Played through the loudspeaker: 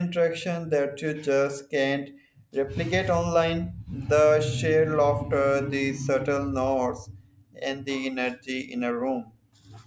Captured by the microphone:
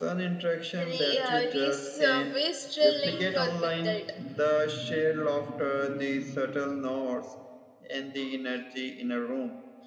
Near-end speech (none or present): present